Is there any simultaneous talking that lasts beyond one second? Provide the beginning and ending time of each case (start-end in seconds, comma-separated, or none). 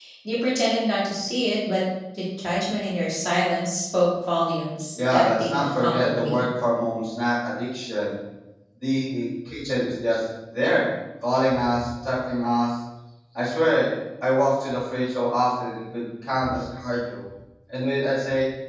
4.9-6.4